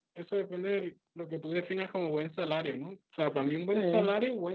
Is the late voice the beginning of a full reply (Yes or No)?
No